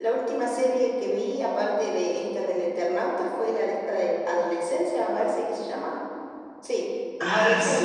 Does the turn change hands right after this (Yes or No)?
No